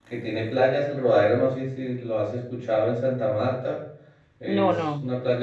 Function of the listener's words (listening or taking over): listening